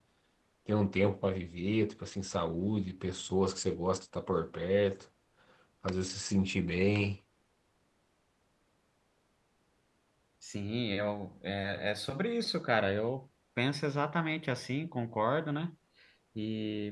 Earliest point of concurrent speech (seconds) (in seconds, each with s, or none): none